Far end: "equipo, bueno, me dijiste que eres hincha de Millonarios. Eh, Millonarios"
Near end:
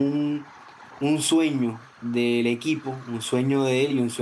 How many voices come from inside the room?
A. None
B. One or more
B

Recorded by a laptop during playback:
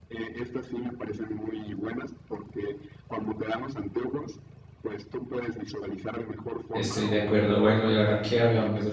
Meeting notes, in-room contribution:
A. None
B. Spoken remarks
B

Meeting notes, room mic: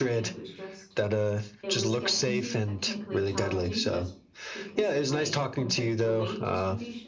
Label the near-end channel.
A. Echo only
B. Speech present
B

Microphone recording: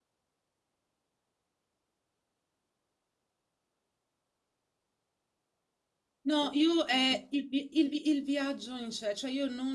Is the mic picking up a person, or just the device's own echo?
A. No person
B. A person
B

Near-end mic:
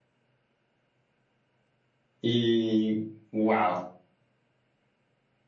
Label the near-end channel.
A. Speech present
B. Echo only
A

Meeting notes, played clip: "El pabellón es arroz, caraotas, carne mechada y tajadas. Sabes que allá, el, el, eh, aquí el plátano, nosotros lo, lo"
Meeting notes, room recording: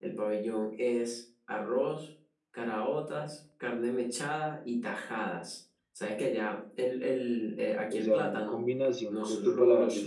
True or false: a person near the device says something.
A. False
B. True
B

